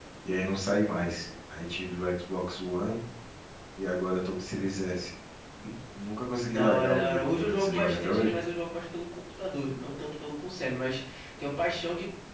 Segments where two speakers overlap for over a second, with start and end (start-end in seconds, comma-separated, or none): 6.5-8.3